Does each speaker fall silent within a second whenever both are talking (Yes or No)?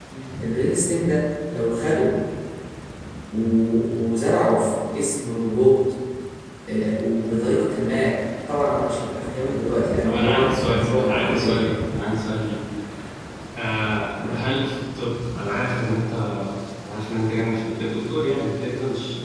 No